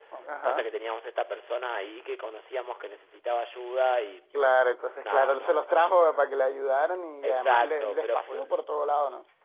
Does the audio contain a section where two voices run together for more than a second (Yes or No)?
Yes